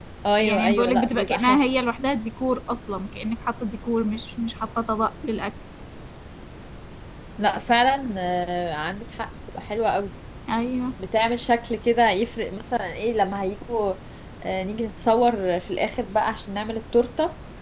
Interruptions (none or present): present